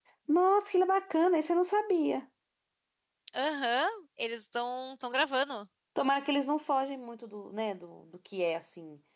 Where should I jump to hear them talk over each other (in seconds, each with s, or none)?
none